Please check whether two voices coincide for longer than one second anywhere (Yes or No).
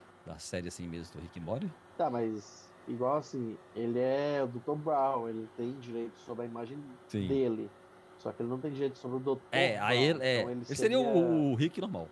Yes